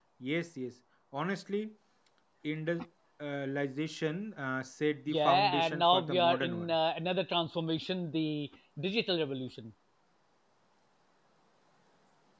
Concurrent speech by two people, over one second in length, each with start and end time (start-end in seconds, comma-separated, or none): 5.1-6.7